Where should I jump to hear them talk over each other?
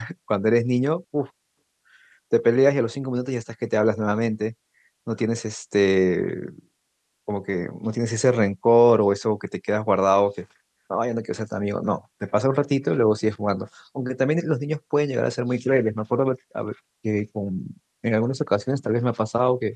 none

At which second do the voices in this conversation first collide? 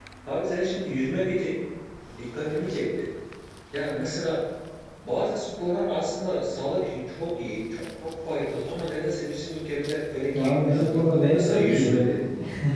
10.3 s

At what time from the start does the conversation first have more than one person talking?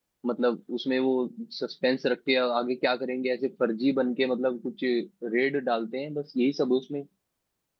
none

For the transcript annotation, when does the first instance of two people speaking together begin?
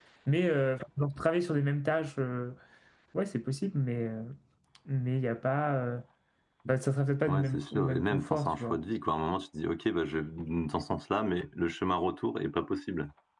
7.3 s

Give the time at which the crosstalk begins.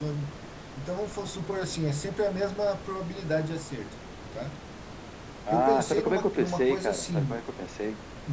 5.5 s

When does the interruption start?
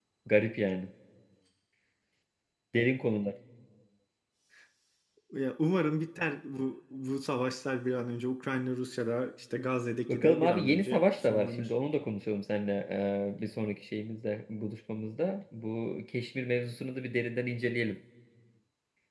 10.1 s

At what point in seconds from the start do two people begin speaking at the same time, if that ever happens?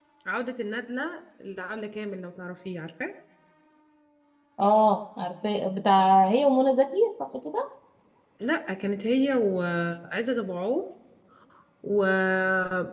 none

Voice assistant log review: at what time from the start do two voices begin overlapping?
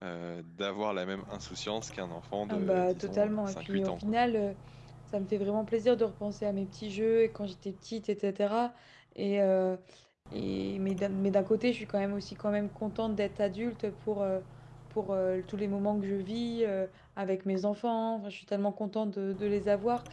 2.5 s

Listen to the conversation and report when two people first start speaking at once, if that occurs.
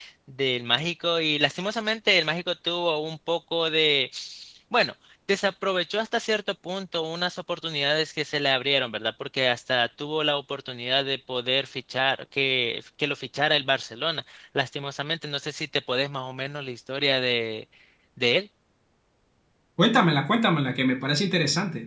none

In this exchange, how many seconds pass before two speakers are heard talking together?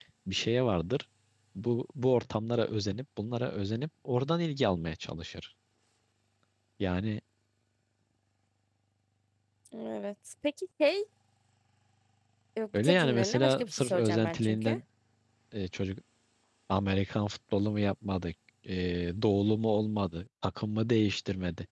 12.7 s

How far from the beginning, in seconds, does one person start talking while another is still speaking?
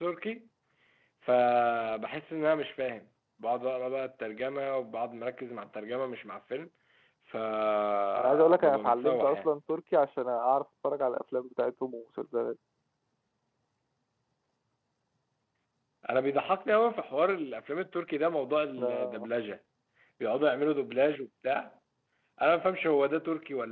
8.2 s

